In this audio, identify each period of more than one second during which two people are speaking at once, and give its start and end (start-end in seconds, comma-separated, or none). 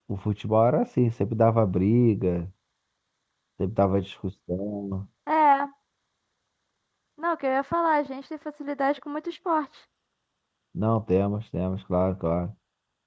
none